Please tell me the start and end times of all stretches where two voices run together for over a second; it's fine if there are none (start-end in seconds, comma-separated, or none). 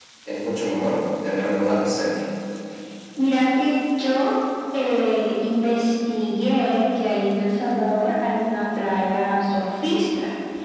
none